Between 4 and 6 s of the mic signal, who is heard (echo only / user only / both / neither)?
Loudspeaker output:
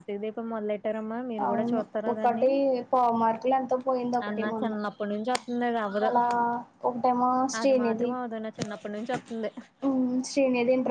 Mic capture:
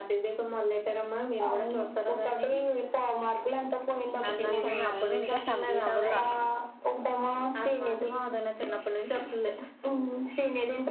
both